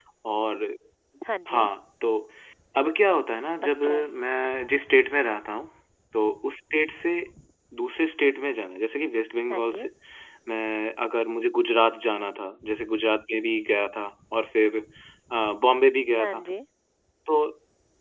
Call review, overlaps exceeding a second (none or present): none